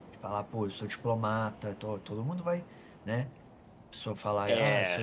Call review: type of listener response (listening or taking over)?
listening